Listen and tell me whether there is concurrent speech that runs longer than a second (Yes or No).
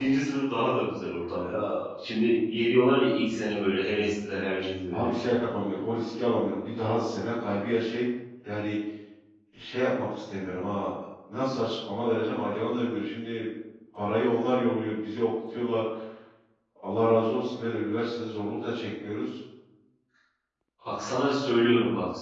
No